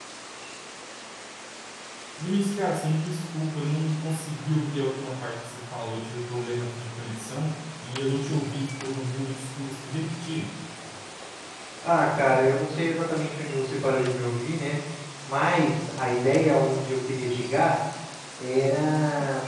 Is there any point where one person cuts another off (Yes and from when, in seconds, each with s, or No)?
No